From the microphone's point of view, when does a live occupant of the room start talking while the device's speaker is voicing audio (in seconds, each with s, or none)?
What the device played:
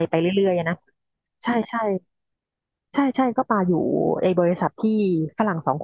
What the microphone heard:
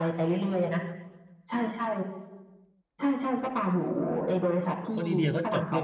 4.9 s